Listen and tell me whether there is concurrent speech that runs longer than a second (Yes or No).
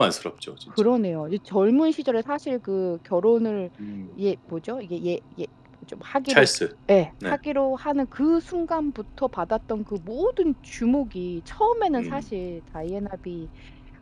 No